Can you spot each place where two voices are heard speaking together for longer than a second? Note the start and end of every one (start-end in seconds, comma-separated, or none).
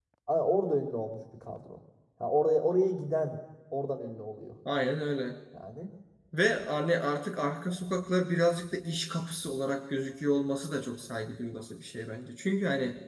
none